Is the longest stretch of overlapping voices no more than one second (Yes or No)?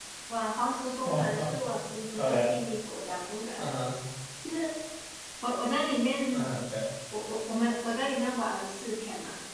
Yes